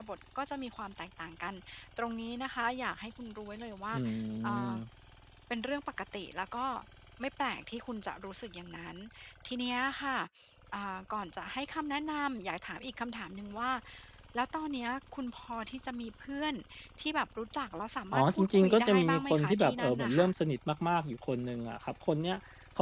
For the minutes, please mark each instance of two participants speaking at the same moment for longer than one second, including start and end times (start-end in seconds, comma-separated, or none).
18.1-20.3